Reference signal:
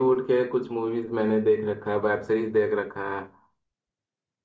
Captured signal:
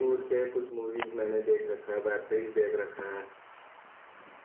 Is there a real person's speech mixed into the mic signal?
No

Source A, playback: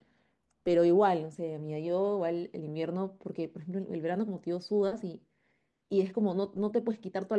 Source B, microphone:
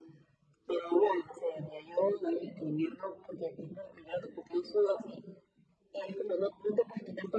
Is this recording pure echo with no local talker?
Yes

